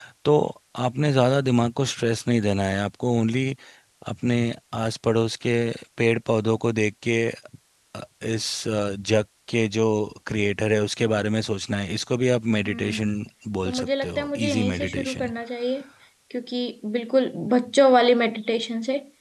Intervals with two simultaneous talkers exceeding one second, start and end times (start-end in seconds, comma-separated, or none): 13.6-15.3